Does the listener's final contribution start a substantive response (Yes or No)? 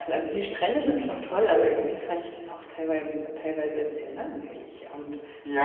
Yes